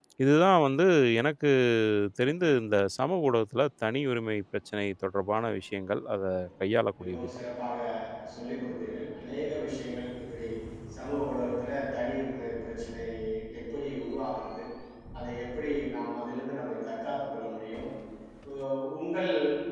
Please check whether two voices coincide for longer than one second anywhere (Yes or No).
No